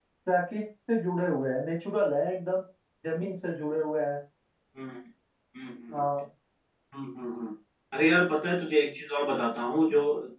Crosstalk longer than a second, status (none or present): none